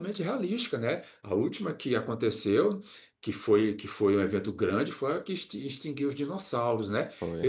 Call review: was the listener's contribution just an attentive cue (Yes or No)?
Yes